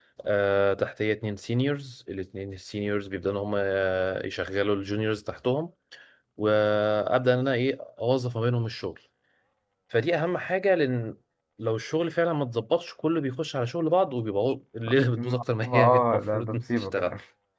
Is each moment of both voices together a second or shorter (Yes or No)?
No